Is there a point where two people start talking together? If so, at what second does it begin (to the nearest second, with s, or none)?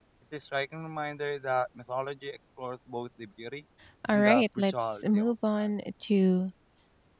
4 s